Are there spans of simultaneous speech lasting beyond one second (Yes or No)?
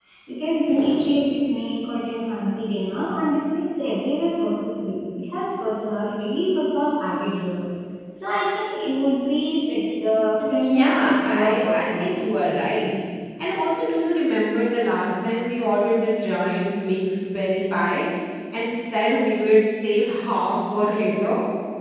Yes